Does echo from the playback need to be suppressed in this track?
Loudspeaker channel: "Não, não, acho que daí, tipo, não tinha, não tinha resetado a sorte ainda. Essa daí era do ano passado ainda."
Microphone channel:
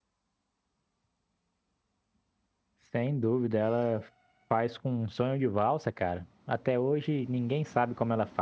No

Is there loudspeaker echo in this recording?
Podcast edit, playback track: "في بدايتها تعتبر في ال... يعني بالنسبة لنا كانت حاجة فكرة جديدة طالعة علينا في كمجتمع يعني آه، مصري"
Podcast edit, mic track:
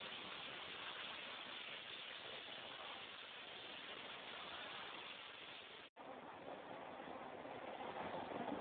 No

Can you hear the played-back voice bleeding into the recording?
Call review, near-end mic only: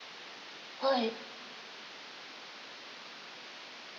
No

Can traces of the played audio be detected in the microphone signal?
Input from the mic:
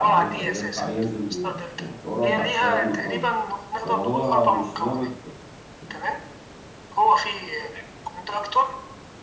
Yes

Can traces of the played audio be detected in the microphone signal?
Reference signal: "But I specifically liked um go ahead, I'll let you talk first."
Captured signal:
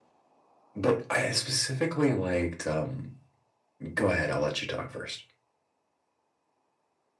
Yes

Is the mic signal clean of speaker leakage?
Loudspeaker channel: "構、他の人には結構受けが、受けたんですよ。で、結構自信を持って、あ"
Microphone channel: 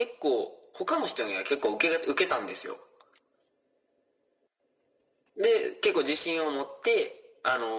No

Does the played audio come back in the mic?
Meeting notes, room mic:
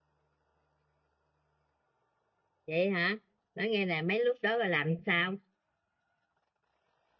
No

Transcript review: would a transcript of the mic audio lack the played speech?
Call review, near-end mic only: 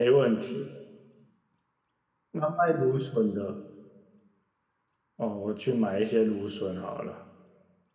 Yes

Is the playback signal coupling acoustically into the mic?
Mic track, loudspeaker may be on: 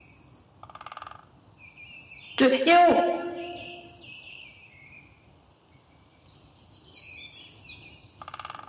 No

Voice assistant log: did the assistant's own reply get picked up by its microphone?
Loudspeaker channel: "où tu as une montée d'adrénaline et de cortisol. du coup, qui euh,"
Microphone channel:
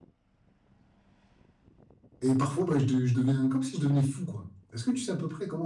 No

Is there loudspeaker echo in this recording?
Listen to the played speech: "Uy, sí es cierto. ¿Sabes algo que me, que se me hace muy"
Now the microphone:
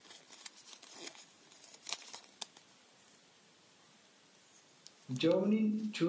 No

